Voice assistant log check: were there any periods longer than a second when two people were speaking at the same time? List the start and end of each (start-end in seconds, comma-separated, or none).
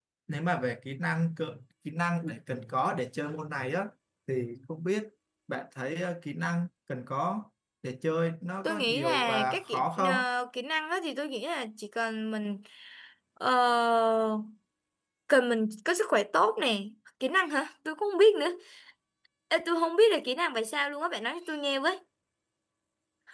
8.6-10.1